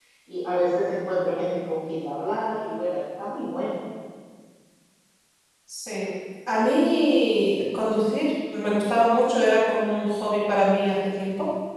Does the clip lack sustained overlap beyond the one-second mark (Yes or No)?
Yes